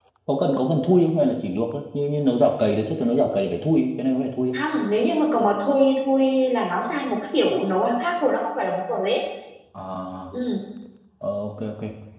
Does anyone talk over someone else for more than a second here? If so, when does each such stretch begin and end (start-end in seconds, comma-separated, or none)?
none